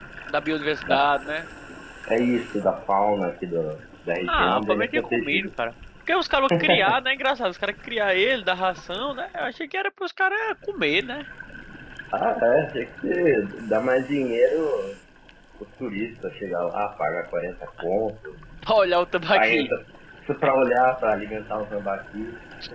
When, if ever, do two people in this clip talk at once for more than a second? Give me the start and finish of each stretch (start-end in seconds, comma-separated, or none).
4.2-5.5